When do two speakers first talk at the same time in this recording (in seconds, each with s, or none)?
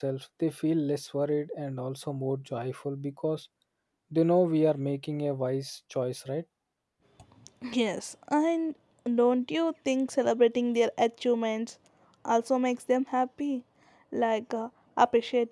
none